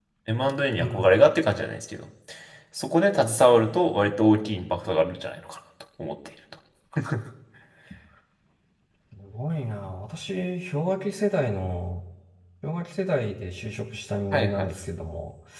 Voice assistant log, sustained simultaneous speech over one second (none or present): none